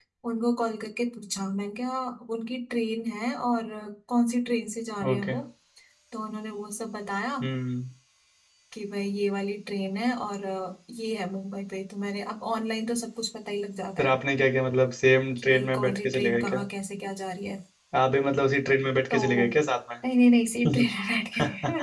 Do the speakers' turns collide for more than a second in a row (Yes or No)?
Yes